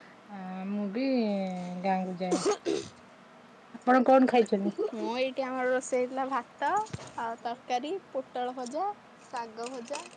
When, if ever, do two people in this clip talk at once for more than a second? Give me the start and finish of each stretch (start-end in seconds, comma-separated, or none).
none